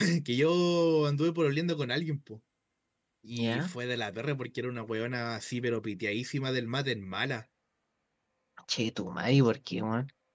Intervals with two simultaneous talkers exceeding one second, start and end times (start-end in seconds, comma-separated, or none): none